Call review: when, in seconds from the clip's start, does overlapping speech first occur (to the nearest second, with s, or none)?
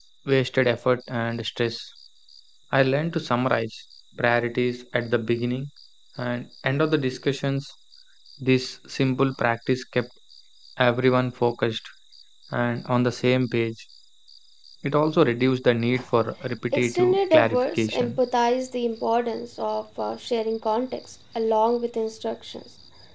17 s